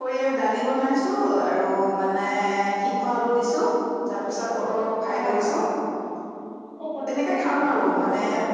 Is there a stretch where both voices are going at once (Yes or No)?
Yes